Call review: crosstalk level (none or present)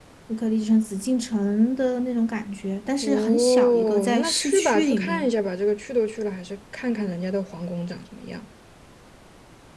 present